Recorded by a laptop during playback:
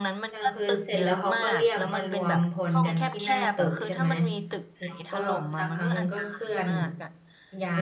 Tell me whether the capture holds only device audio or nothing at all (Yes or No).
No